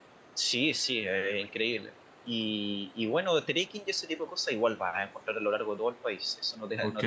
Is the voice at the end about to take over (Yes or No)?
Yes